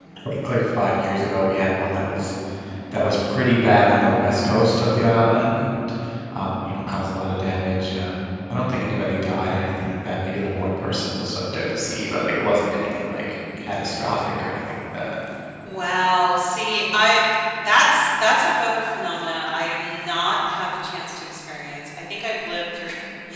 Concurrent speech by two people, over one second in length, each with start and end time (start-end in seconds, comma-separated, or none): none